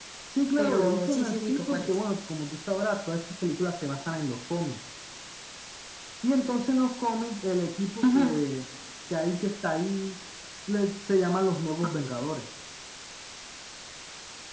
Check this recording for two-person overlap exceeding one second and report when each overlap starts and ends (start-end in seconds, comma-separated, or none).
0.6-2.0